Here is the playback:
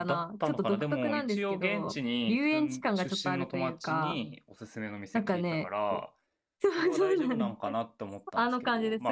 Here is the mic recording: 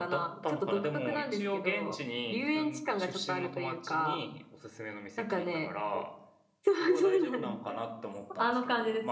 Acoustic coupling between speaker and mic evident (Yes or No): Yes